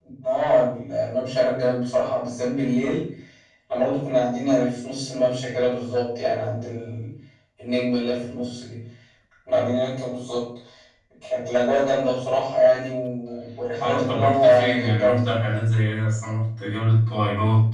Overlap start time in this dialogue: 13.8 s

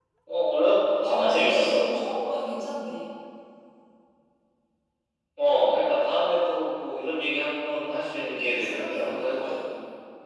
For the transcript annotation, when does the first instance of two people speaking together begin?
0.6 s

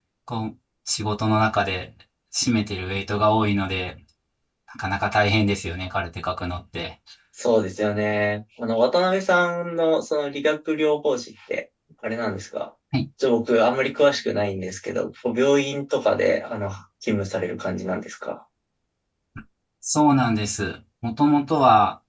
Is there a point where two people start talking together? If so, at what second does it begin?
none

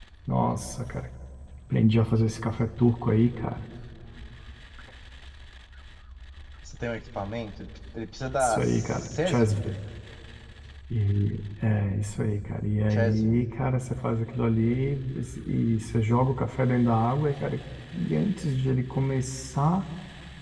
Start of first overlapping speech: 8.4 s

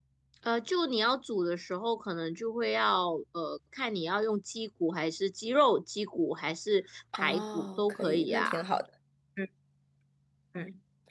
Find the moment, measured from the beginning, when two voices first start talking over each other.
7.1 s

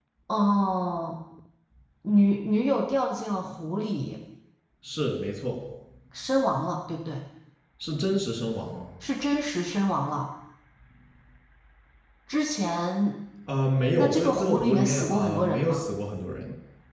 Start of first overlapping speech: 14.0 s

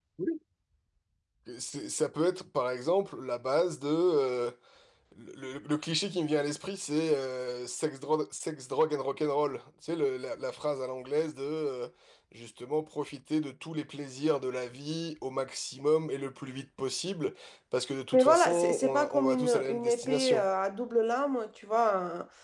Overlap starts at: 18.1 s

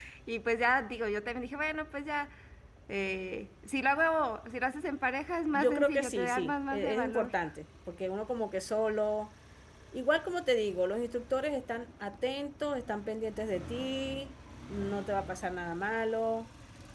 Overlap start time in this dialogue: 5.5 s

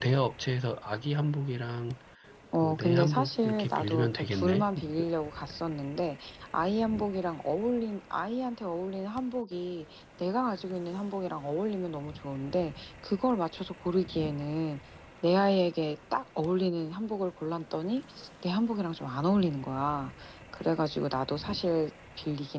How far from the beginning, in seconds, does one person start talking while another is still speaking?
2.6 s

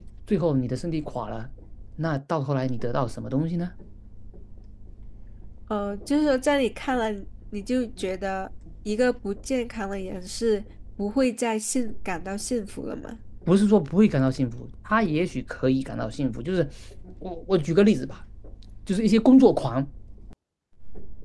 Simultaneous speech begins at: none

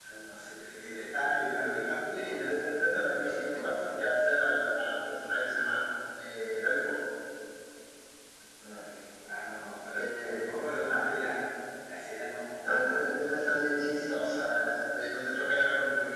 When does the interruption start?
2.2 s

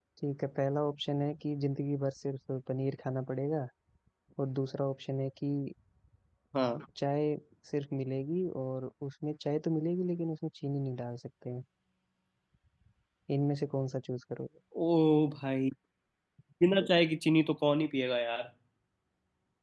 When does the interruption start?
none

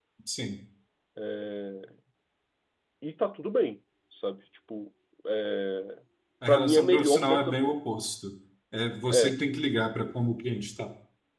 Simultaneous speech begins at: 6.5 s

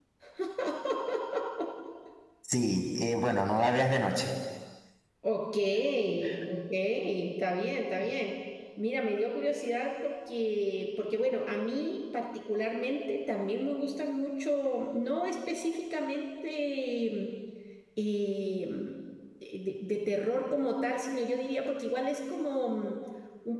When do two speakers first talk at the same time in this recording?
none

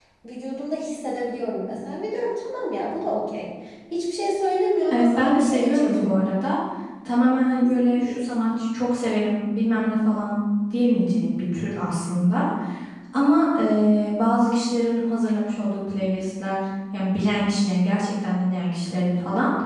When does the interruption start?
4.9 s

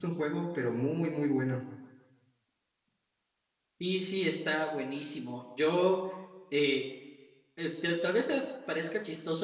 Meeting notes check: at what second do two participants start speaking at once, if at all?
none

